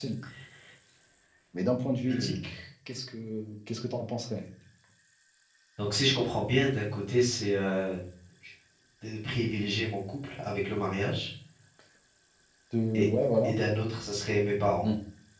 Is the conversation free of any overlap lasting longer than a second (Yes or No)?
Yes